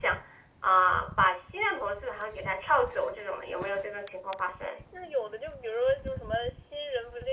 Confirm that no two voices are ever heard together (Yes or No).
Yes